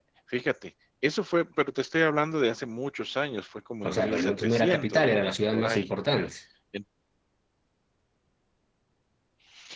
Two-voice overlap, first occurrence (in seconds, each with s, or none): 3.8 s